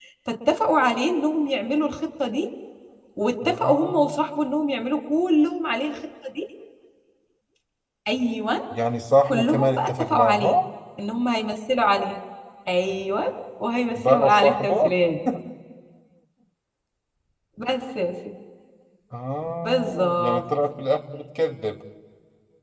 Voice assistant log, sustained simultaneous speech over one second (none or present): present